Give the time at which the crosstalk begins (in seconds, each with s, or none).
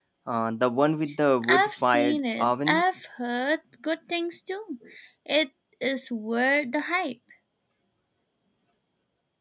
1.4 s